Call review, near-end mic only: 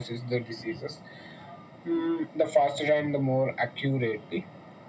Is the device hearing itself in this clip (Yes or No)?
Yes